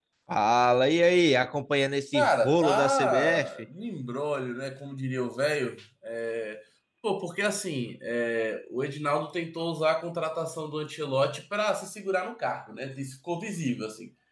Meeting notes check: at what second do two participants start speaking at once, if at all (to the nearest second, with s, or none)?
2 s